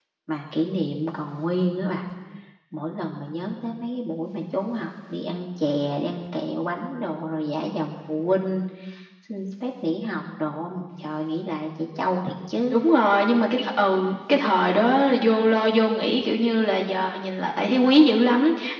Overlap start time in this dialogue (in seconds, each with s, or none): none